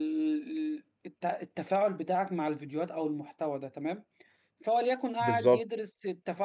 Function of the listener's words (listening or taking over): listening